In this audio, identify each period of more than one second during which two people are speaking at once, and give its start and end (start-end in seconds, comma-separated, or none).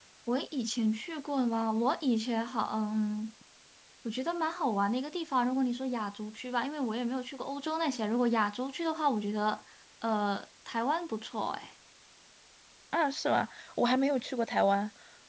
none